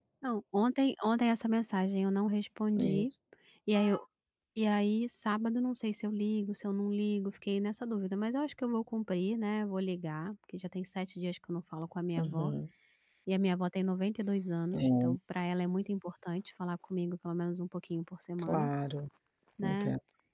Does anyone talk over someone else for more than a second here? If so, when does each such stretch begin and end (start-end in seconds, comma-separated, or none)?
none